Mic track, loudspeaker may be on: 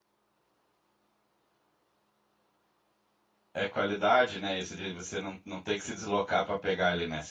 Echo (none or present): none